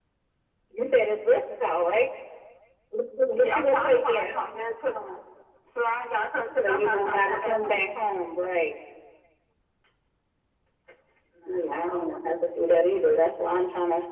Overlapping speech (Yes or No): Yes